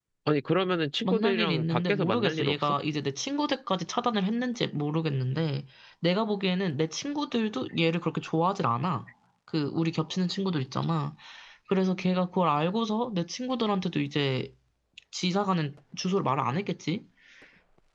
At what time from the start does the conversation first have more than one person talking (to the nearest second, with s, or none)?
1 s